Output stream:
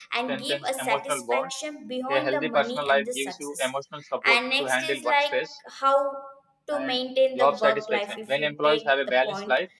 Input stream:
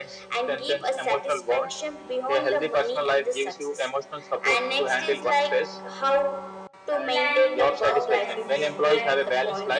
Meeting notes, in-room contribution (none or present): present